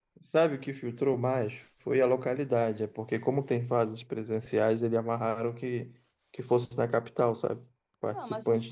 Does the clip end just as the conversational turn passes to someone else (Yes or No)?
Yes